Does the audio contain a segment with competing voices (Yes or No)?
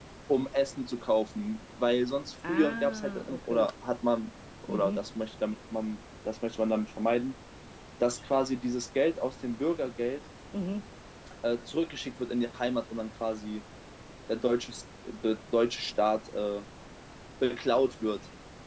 Yes